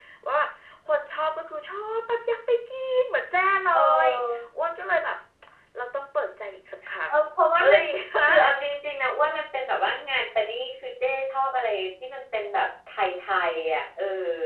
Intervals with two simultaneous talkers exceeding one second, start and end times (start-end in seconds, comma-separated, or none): none